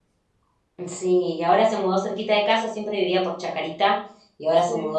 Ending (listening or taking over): listening